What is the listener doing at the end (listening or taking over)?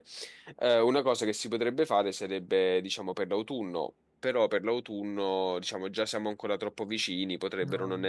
listening